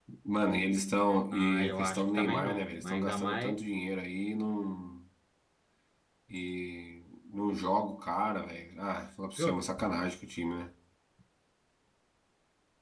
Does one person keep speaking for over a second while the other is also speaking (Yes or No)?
Yes